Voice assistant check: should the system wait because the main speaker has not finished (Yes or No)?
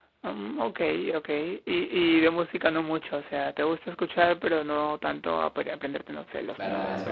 No